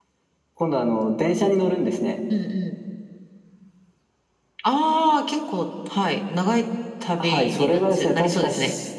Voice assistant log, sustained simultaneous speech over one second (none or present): present